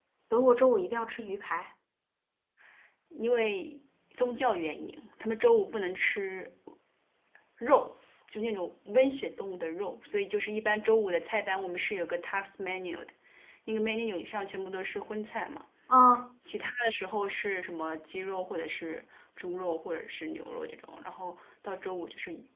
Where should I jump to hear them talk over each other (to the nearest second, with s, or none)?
none